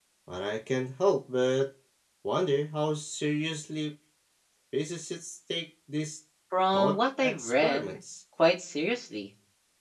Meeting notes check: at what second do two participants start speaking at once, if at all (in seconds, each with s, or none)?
6.7 s